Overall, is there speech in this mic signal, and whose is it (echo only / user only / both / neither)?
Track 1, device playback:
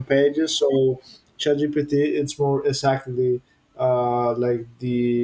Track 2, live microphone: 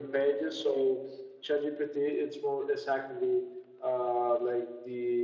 echo only